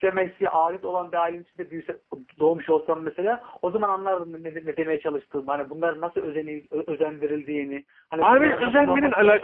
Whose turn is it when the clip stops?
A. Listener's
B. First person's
A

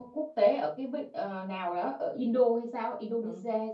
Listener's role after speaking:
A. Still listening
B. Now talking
B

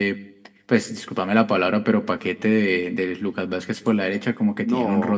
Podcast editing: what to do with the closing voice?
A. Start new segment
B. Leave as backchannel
A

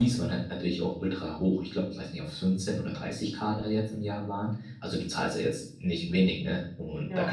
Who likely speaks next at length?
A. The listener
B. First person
B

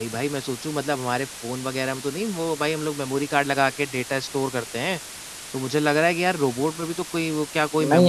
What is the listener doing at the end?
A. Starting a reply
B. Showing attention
A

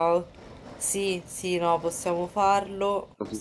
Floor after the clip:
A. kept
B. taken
B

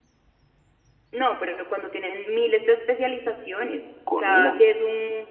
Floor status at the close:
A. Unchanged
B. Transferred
A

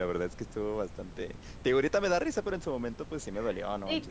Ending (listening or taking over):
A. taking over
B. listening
A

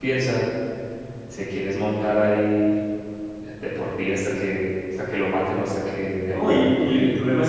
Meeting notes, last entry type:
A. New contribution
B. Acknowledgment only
A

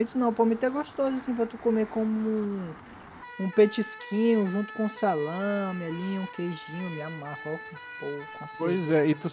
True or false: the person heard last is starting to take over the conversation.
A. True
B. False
A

